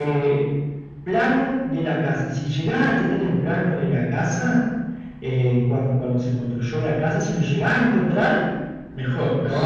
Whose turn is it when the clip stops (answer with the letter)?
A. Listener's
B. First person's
A